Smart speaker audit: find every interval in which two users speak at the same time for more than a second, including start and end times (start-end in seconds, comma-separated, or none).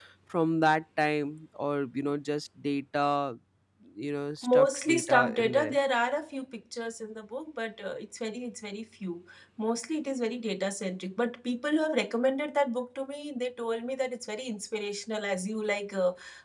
4.4-5.8